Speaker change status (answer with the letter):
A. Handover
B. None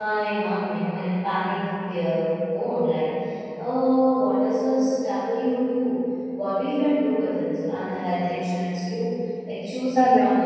A